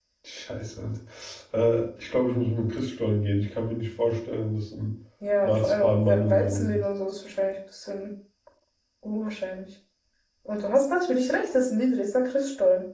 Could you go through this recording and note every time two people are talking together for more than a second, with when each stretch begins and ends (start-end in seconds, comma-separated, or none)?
5.4-6.8